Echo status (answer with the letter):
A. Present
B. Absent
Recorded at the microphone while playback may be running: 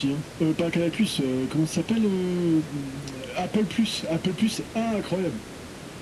A